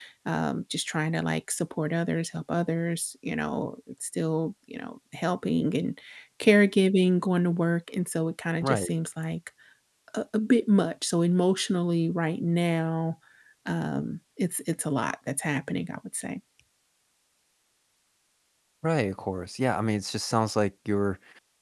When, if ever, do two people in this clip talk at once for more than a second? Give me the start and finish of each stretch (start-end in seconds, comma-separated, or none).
none